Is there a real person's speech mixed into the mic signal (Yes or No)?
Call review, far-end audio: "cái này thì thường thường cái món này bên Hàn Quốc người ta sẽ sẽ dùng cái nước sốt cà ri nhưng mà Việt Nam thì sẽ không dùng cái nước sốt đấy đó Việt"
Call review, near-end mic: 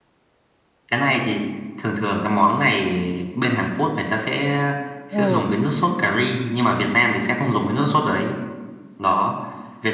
Yes